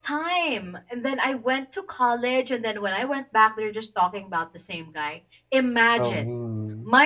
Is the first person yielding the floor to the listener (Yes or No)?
No